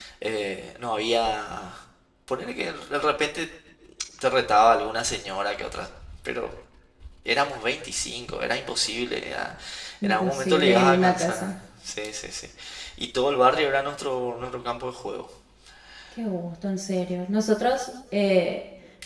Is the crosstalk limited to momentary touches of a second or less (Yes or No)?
No